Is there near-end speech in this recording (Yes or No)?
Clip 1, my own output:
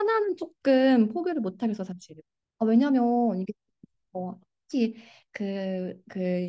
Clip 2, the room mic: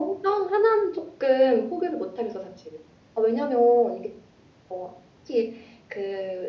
No